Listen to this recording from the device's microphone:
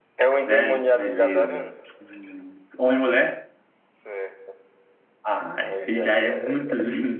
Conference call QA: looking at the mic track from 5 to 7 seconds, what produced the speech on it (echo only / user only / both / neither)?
both